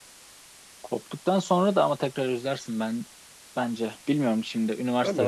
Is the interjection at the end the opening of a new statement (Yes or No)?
Yes